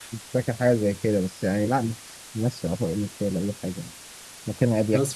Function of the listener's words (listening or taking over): taking over